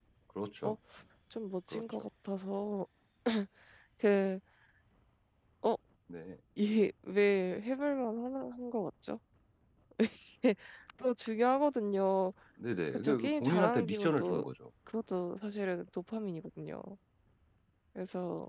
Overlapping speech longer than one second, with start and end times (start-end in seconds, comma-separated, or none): 12.9-14.4